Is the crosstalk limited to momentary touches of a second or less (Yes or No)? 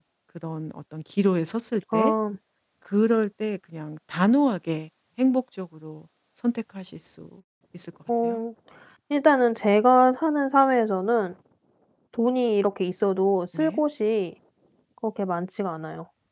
Yes